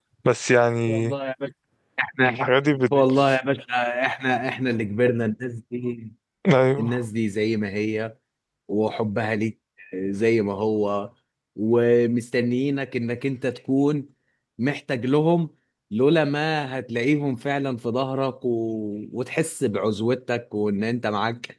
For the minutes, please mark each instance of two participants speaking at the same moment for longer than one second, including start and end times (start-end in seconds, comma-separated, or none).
none